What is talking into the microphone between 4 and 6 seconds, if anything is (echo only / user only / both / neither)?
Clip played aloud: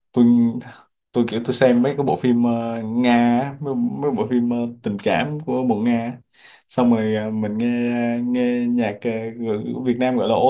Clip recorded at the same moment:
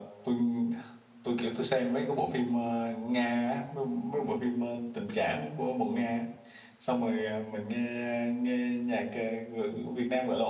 echo only